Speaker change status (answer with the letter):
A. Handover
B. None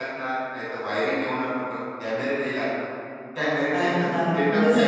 A